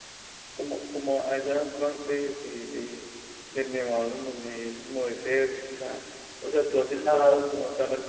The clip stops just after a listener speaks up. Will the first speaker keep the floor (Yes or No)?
Yes